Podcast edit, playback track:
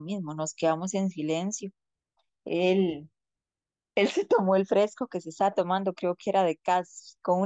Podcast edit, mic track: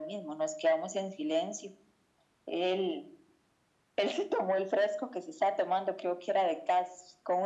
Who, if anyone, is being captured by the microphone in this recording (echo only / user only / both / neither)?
echo only